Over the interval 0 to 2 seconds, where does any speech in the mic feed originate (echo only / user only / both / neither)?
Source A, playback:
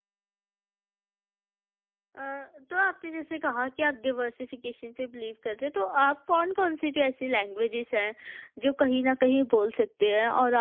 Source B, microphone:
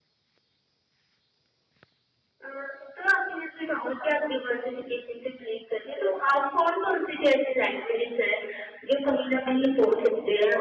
neither